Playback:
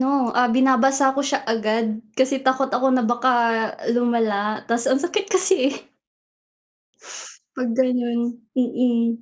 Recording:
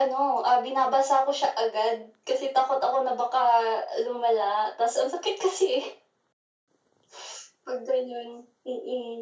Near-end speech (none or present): none